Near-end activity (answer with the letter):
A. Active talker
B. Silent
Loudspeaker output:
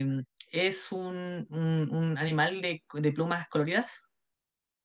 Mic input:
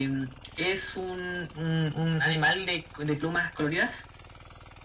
B